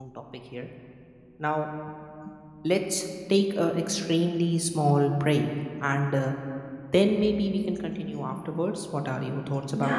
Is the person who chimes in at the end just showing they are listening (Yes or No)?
No